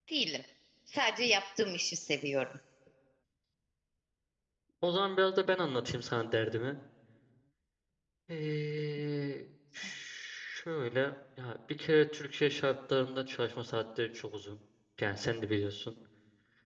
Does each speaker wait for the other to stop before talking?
Yes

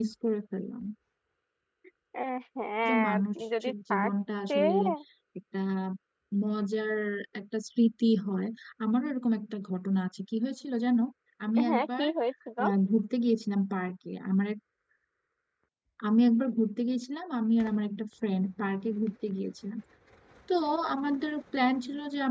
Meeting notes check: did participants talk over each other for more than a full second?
Yes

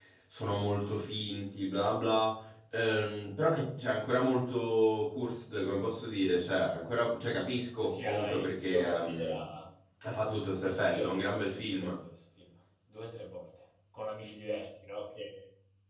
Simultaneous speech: Yes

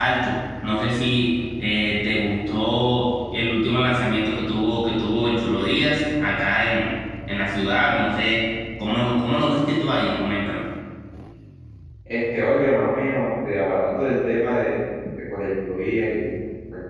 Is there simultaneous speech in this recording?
No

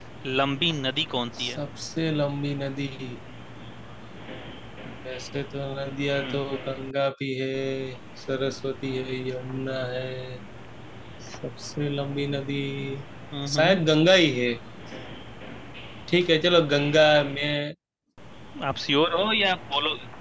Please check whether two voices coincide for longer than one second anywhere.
No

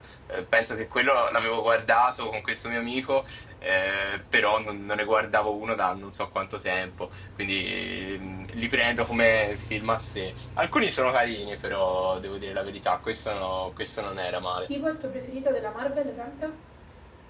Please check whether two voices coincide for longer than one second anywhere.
No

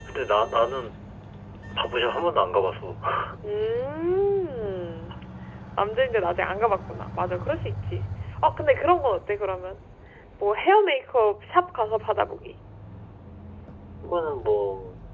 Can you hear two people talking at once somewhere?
No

